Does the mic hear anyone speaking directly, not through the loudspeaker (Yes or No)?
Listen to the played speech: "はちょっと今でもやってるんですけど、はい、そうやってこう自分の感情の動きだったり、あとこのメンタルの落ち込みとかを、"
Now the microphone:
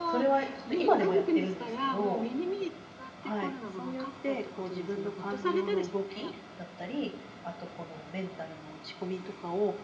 Yes